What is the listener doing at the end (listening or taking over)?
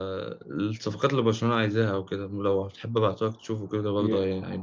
taking over